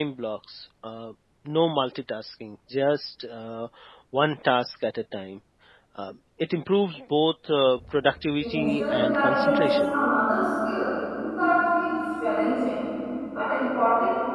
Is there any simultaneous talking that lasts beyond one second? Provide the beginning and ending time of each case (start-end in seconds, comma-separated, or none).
8.4-9.9